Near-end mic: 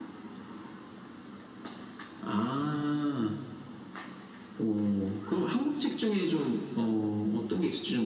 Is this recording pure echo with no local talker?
Yes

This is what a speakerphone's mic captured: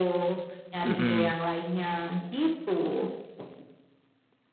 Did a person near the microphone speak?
Yes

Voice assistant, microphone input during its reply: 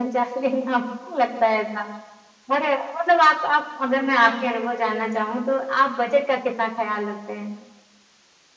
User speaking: No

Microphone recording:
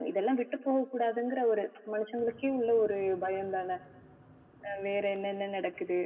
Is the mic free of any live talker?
Yes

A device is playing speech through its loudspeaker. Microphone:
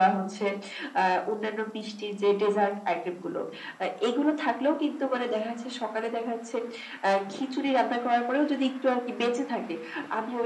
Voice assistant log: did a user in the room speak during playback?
No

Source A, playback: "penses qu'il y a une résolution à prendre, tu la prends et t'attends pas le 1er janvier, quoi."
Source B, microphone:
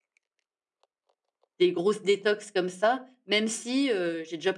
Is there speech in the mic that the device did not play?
Yes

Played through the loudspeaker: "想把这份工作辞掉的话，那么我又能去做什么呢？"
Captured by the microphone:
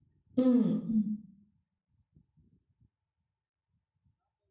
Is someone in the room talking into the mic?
Yes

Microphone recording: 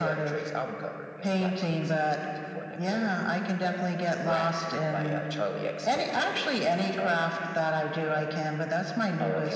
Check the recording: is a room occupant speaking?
No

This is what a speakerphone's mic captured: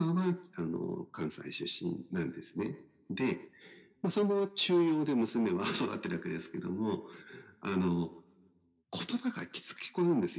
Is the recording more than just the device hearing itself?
No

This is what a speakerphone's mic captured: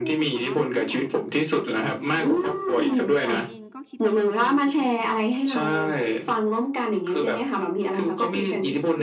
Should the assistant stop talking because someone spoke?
Yes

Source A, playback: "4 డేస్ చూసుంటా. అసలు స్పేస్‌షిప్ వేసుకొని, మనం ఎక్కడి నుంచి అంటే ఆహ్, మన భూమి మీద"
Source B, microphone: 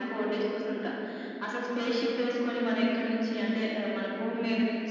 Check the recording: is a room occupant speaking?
No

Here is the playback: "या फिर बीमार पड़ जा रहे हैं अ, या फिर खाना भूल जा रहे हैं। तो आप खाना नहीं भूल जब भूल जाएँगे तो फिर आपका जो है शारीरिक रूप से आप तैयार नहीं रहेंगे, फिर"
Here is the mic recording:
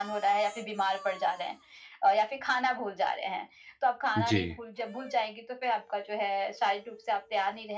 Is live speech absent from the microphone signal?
No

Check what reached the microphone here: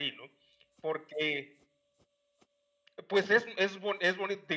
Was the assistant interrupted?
No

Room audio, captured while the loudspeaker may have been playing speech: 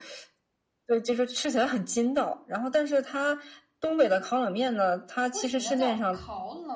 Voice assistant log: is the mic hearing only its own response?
No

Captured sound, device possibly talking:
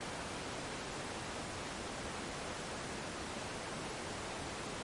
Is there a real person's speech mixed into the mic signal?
No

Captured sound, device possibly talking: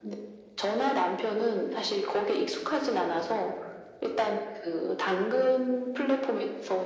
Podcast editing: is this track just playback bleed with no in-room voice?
Yes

